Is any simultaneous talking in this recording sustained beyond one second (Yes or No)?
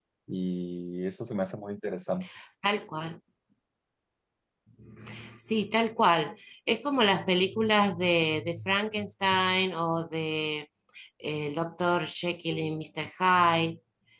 No